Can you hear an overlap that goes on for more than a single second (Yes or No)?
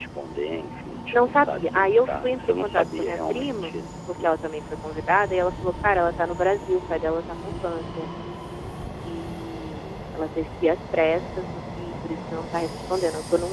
Yes